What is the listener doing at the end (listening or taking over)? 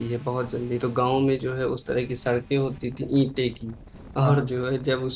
listening